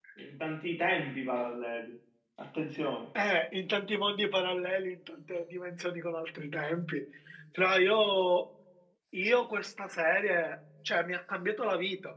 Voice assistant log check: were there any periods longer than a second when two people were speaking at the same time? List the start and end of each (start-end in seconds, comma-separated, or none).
none